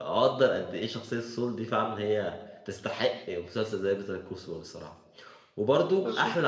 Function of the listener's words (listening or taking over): listening